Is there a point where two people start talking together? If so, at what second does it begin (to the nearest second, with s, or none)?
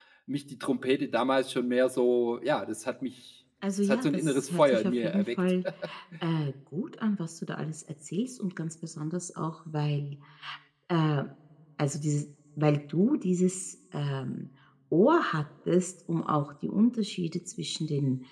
4 s